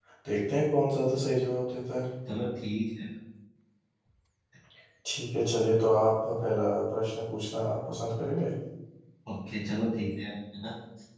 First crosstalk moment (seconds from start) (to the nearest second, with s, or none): none